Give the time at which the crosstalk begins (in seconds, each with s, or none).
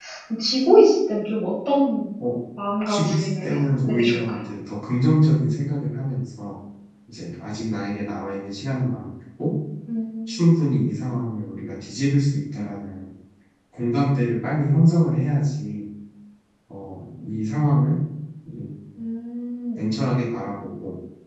2.9 s